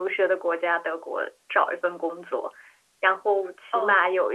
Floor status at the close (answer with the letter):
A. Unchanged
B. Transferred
A